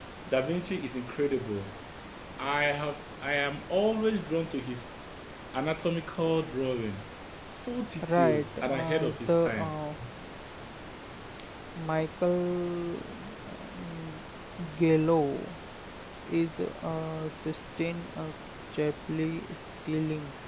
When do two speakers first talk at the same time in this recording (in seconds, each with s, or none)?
8.0 s